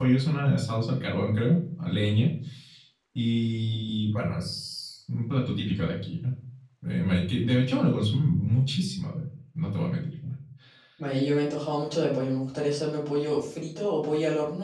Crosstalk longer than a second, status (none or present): none